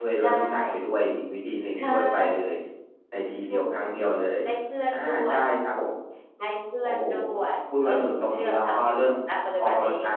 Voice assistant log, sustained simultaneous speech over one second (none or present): present